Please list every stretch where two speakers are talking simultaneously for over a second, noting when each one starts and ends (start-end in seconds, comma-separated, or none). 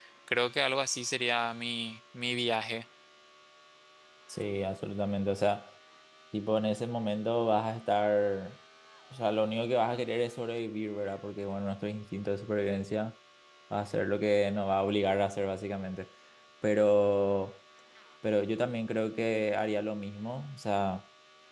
none